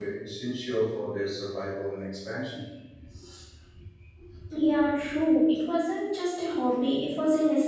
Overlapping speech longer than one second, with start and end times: none

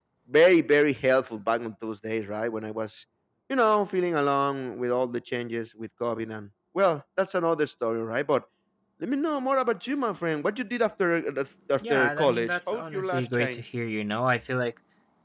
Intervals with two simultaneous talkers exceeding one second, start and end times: 11.8-13.6

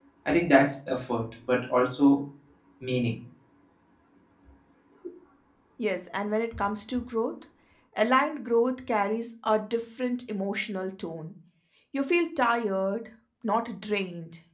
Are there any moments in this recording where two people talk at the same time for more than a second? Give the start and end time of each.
none

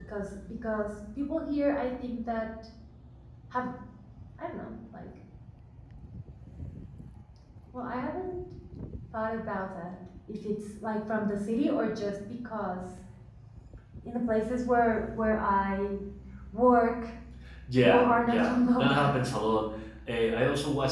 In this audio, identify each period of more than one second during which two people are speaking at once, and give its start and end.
17.8-19.1

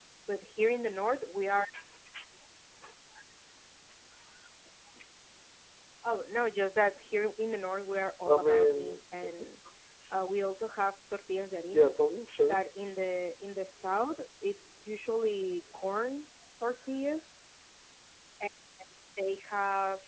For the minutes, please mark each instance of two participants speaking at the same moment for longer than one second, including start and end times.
8.3-9.5

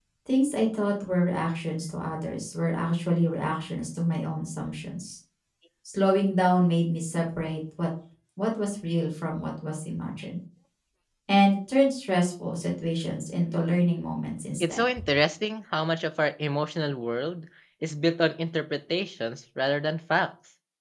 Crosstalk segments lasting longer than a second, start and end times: none

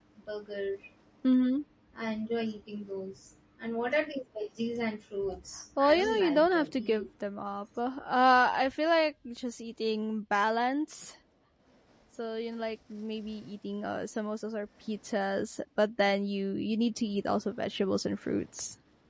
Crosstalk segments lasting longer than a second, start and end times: 5.8-7.1

